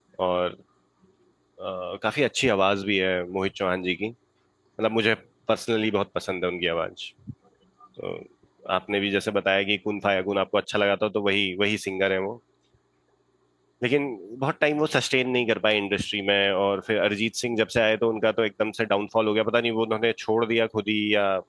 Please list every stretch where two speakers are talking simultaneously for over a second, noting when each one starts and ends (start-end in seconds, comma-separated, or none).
none